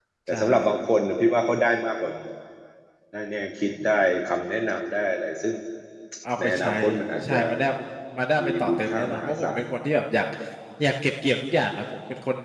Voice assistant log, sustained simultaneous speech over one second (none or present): present